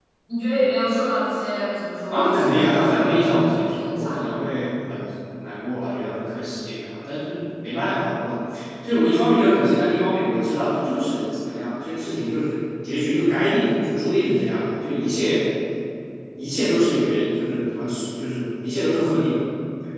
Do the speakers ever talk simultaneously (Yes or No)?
Yes